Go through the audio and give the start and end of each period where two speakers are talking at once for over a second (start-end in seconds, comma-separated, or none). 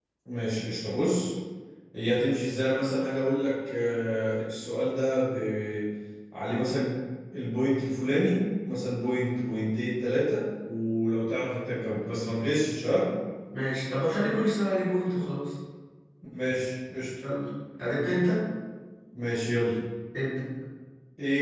none